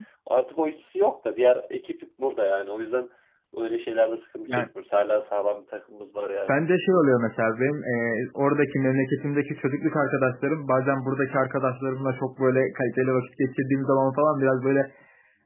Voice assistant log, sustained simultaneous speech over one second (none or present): none